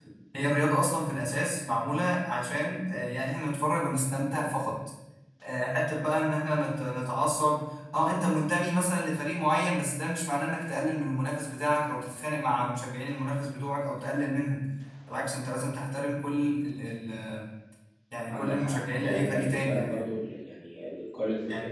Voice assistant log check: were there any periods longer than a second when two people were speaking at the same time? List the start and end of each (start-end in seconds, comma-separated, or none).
18.3-20.1